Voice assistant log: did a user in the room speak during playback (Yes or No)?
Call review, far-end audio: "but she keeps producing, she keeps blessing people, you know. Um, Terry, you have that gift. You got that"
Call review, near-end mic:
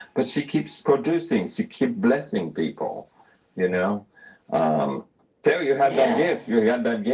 Yes